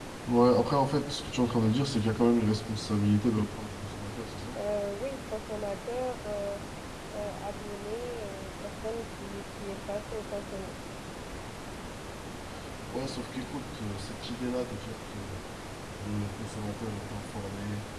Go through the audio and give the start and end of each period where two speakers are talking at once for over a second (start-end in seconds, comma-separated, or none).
none